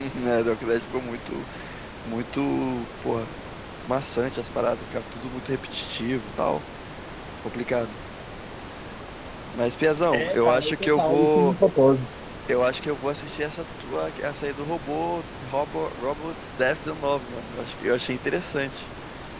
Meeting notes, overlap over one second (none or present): present